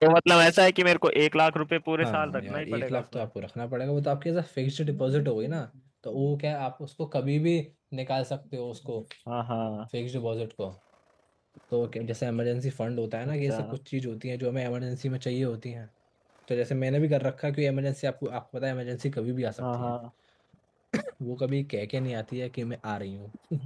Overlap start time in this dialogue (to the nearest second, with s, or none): 2 s